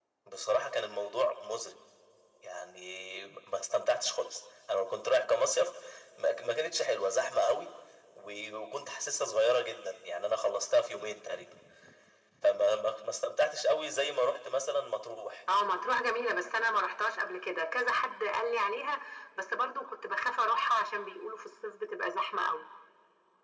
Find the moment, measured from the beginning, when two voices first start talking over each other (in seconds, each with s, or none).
none